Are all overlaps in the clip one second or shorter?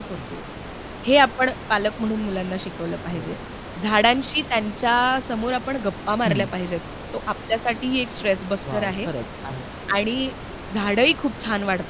Yes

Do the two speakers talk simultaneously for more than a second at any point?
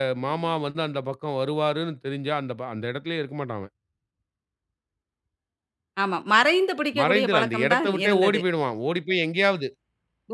Yes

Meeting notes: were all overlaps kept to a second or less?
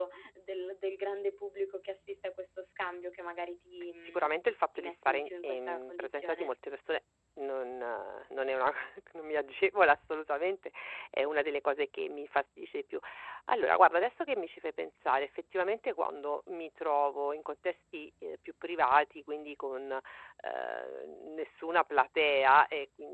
No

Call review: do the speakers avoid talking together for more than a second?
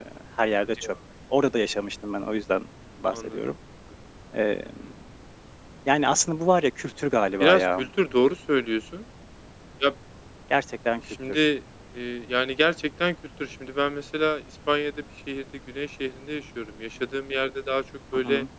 Yes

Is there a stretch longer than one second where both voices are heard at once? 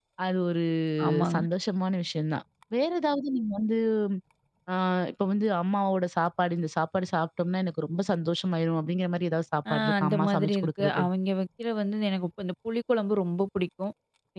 Yes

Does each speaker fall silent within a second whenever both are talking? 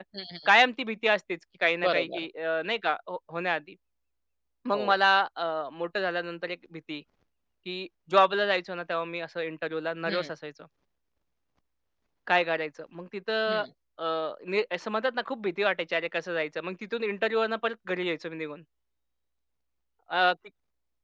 Yes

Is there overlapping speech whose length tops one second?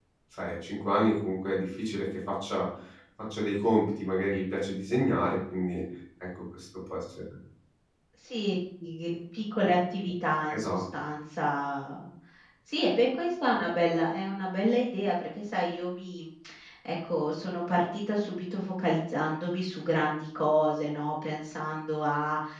No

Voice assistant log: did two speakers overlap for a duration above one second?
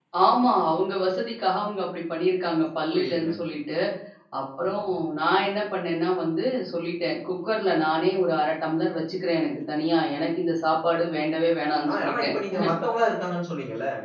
No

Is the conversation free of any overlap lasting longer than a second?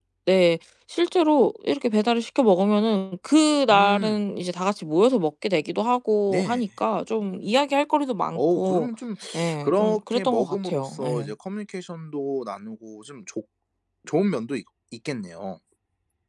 No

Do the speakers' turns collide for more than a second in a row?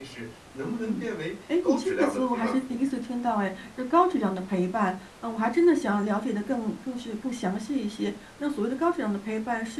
Yes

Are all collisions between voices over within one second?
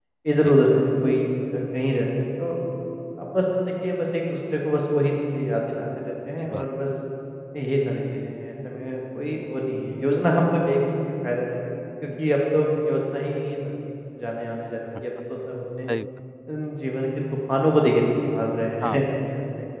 Yes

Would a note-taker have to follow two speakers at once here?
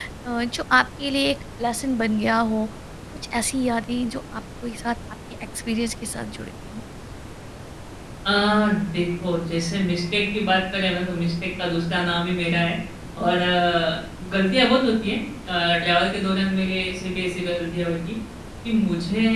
No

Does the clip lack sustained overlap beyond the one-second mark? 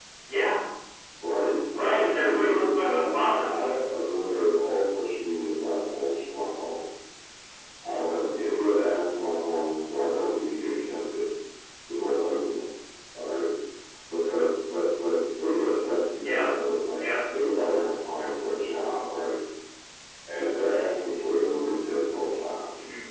No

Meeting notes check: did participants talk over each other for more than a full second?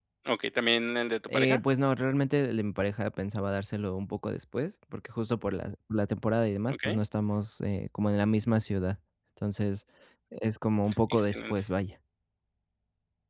No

